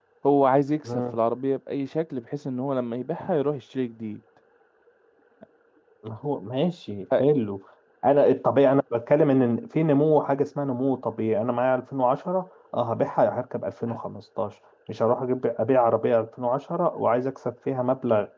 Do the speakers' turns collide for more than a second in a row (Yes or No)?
No